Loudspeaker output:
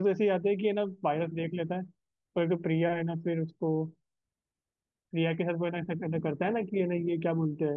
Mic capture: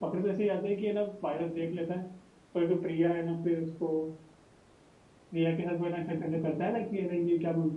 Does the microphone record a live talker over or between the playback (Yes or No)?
No